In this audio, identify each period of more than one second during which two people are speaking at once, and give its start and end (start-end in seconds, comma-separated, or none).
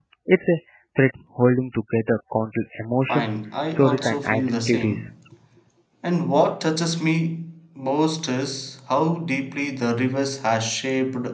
3.7-5.1